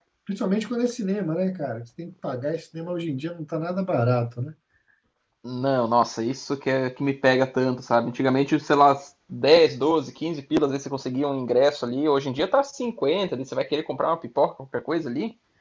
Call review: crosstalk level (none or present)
none